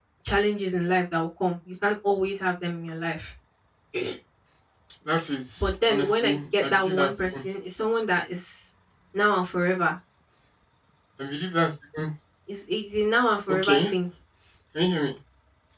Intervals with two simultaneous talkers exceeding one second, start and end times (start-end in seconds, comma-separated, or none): 5.6-7.4